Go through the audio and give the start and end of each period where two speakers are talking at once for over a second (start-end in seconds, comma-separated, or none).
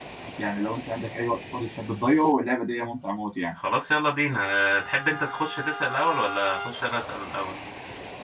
none